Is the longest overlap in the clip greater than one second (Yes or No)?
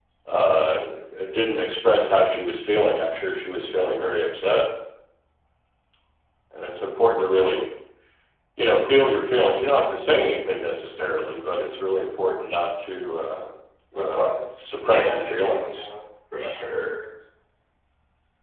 Yes